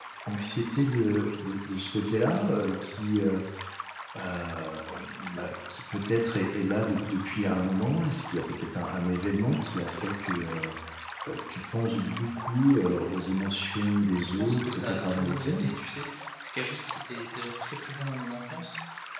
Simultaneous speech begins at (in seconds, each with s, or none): 14.4 s